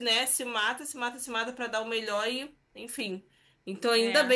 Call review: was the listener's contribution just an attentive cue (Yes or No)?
Yes